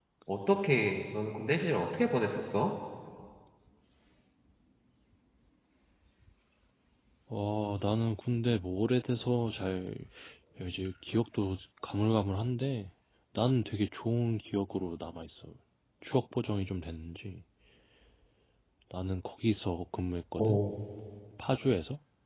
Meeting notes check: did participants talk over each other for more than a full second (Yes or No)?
No